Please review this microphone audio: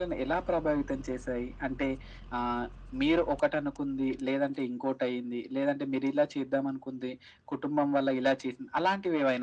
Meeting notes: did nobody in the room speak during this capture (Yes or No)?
Yes